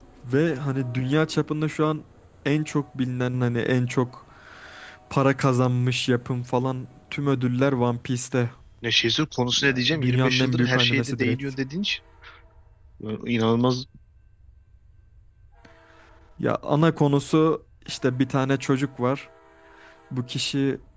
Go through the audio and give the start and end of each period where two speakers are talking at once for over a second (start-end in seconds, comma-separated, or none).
9.6-11.4